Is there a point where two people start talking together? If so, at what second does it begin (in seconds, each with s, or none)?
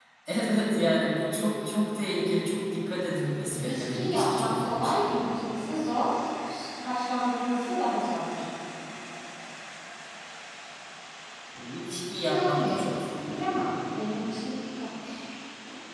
3.5 s